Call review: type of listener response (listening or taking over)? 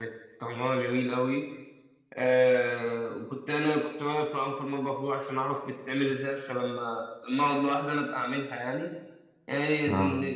listening